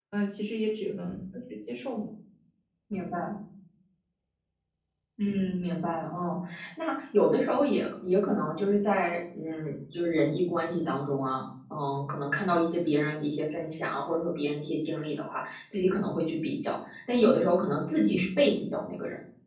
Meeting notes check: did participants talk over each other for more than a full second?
No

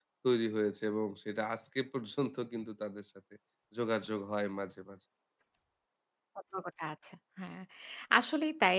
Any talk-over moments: No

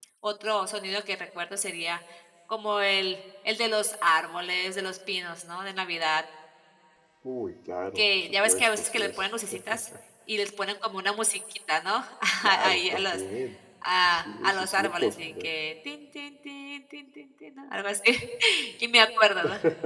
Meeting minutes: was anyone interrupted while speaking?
Yes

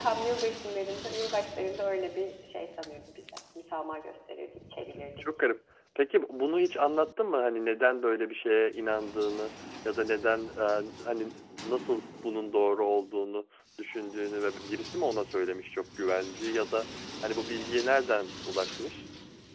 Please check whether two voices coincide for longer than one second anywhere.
No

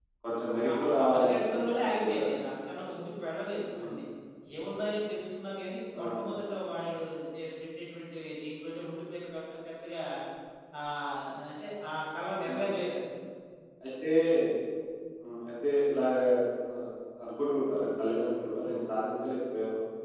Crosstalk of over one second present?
Yes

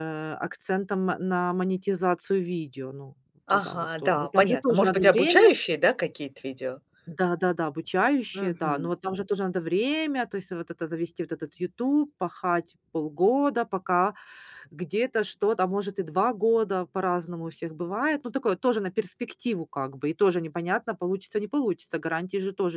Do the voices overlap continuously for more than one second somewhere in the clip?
Yes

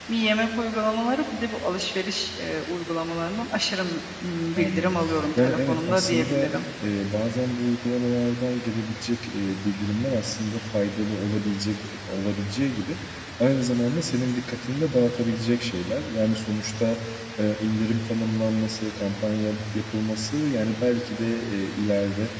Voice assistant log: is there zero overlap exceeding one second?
No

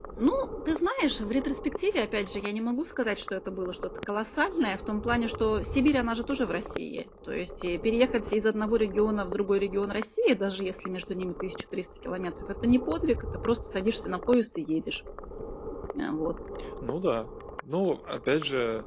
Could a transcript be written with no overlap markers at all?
Yes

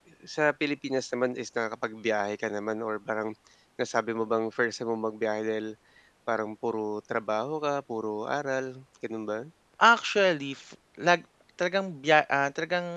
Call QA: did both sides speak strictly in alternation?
Yes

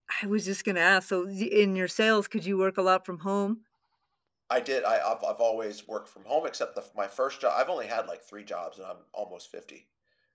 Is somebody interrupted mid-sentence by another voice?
No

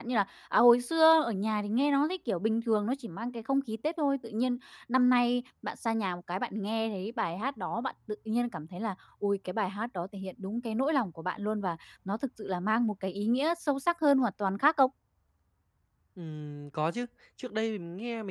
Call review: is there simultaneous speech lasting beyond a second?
No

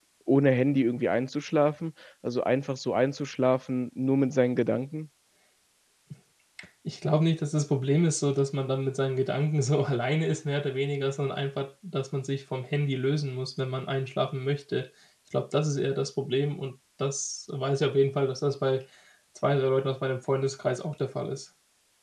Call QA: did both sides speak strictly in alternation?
Yes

